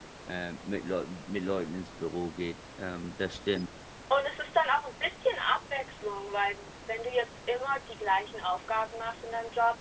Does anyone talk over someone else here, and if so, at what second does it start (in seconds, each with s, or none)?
none